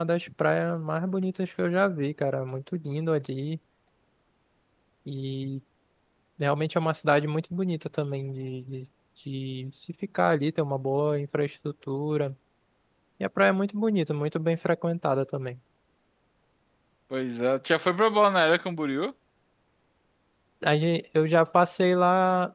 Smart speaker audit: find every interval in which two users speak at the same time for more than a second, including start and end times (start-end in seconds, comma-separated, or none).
none